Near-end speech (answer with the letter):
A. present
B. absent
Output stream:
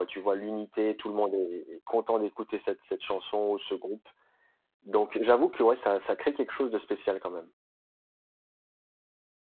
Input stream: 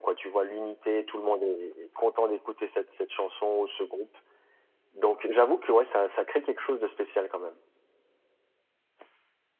B